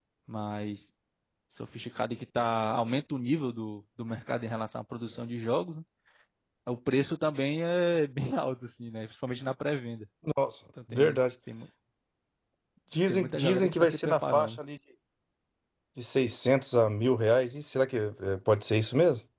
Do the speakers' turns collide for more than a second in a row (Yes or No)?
Yes